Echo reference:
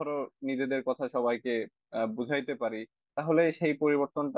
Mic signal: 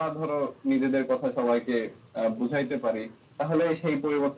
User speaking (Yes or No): No